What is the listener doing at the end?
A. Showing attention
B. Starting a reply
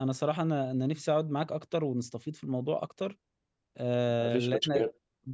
A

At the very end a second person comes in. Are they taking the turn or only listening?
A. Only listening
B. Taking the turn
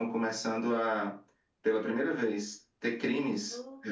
A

